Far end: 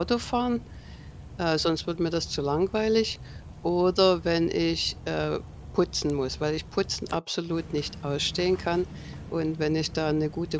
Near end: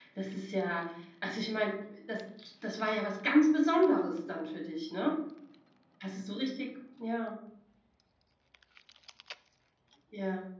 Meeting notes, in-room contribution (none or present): present